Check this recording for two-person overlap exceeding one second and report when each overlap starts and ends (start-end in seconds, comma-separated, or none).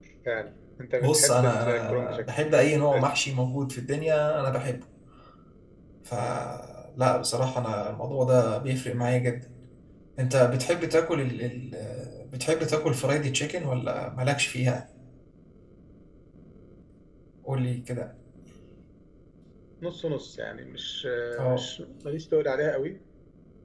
1.0-2.3